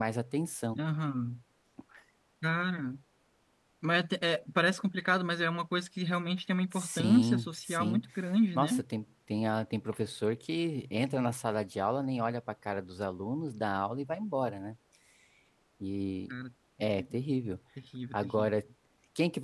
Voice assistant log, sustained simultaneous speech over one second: present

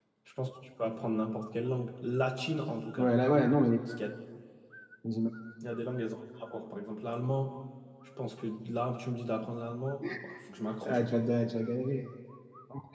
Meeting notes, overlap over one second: none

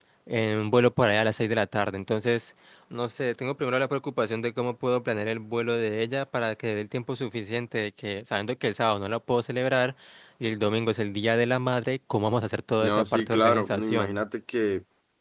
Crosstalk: present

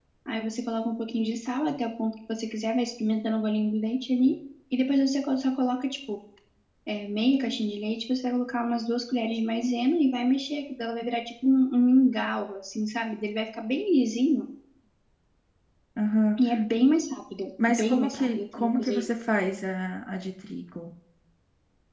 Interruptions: present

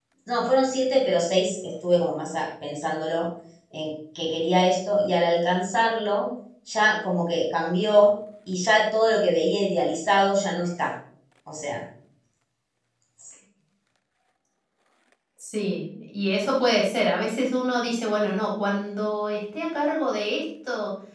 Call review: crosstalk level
none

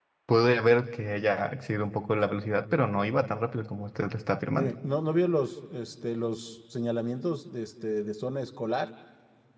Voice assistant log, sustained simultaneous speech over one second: none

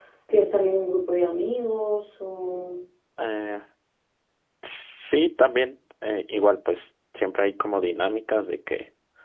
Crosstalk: none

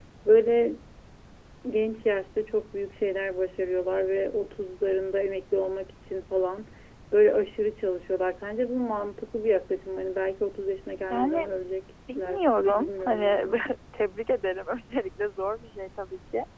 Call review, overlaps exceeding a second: present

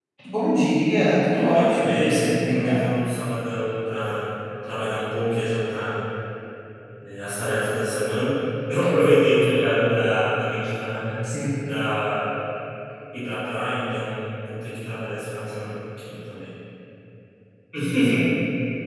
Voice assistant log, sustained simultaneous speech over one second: present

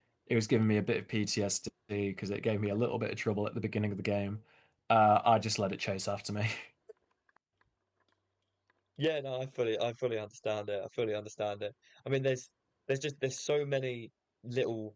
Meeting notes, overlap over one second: none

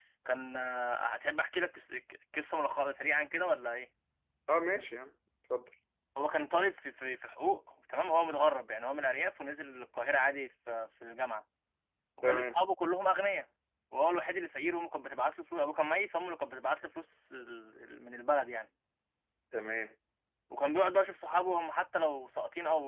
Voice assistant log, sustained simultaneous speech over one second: none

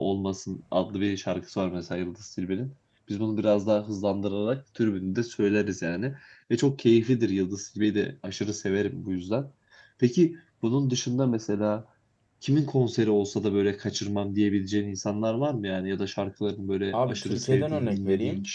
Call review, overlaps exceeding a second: present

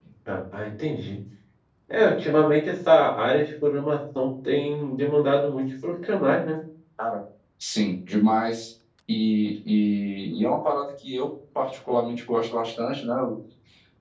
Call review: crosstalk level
none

